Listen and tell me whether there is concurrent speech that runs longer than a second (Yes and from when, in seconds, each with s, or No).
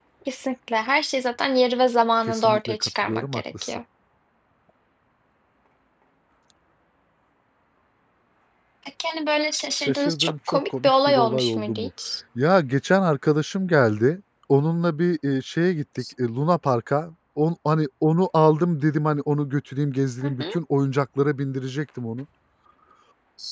Yes, from 2.3 s